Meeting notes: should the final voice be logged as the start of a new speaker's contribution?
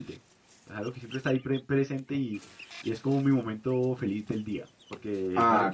No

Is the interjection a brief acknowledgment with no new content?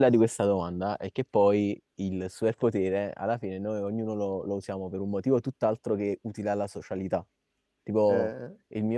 Yes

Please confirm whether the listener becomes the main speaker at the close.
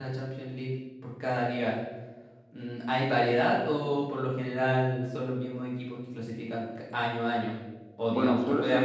Yes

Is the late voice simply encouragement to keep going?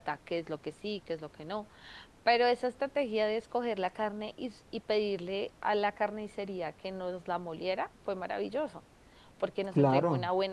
Yes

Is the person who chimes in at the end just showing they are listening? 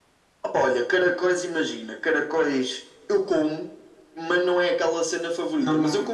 Yes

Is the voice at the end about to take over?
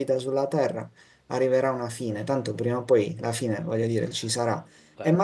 No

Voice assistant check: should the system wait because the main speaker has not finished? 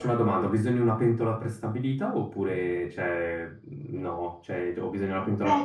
No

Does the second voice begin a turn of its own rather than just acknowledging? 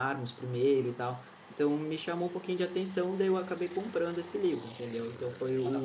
No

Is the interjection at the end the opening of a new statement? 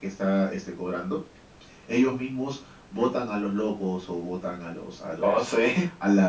No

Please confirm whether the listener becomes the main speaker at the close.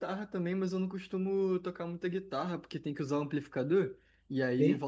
No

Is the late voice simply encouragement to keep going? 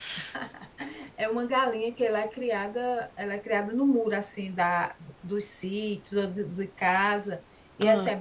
Yes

